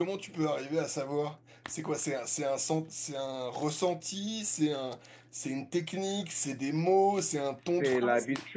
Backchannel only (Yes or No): No